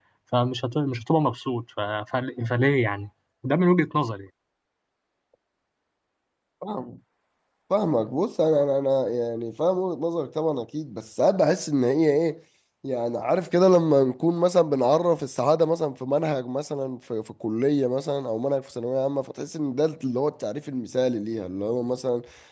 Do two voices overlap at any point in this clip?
No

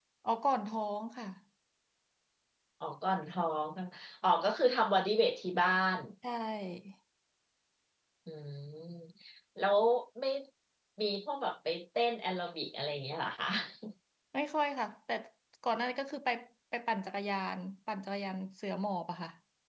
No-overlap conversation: Yes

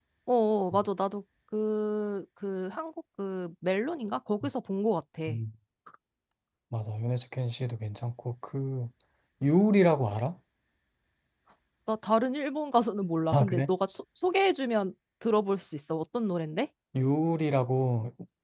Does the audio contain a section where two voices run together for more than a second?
No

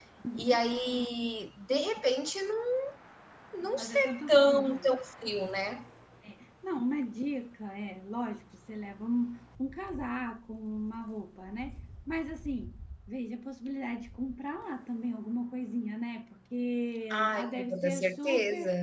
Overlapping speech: Yes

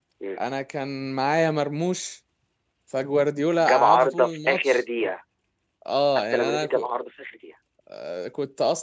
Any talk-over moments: Yes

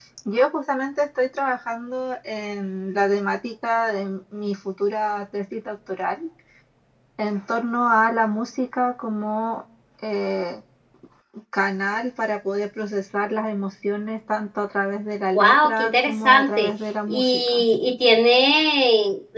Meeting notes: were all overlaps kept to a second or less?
No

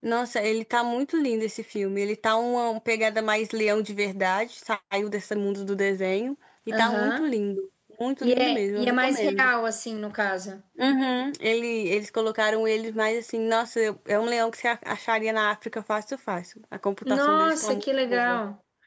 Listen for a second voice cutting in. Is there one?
Yes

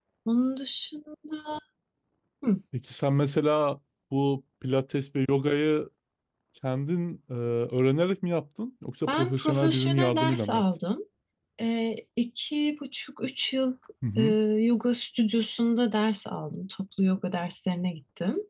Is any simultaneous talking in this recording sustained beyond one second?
Yes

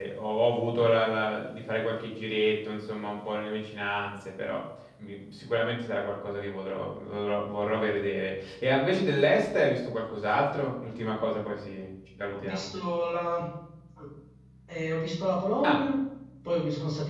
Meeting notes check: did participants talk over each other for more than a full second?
No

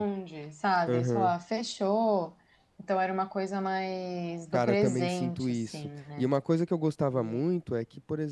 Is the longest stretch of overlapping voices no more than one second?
No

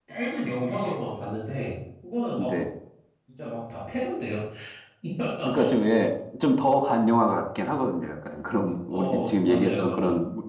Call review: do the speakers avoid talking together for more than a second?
No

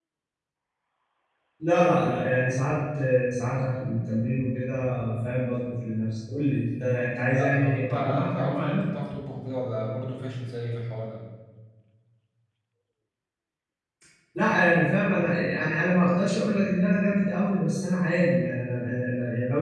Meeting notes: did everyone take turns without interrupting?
No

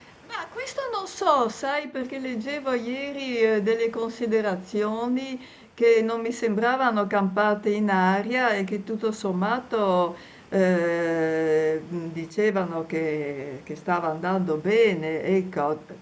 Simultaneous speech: No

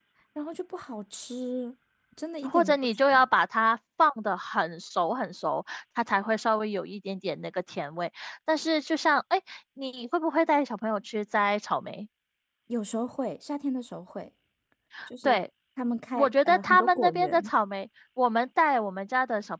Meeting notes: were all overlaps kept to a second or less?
No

